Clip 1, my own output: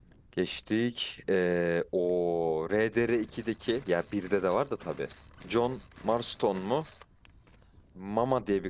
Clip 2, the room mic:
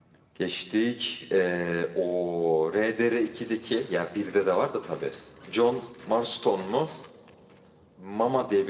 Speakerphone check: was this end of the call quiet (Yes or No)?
Yes